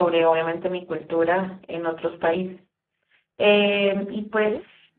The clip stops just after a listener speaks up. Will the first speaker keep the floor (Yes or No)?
Yes